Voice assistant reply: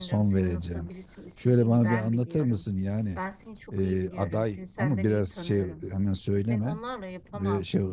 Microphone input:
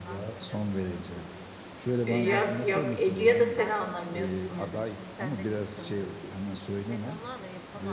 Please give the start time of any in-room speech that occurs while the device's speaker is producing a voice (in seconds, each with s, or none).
2.0 s